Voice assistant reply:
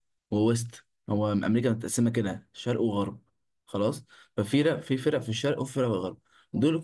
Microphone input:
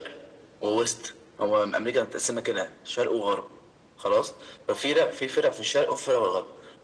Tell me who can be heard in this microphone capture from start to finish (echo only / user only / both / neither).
echo only